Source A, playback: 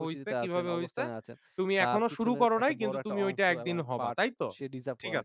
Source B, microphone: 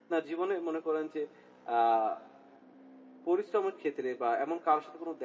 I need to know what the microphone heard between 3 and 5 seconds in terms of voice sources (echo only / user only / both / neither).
user only